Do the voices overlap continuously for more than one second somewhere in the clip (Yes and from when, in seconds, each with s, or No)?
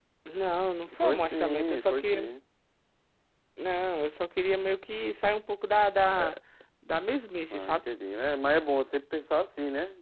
Yes, from 1.0 s